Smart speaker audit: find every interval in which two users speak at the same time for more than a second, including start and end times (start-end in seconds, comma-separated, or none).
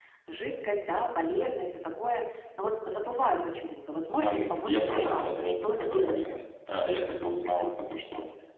4.2-6.2